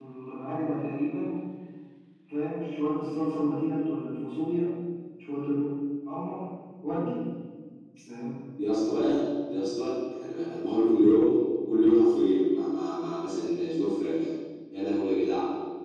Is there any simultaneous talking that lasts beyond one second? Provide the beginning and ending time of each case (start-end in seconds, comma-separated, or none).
none